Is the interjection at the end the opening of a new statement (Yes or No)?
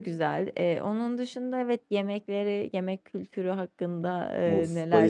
Yes